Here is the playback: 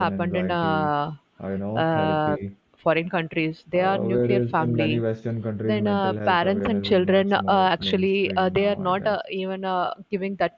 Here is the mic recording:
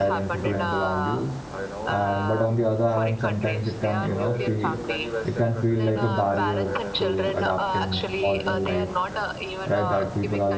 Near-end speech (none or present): present